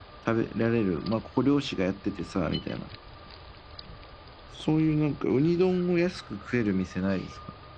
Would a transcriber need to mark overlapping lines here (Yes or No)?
No